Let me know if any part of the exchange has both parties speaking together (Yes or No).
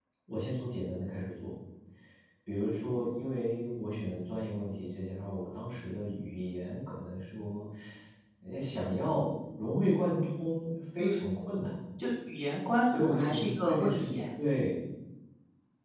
Yes